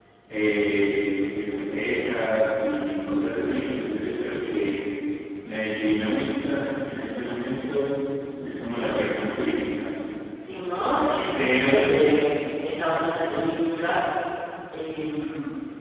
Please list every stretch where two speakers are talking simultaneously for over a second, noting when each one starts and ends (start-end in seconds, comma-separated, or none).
none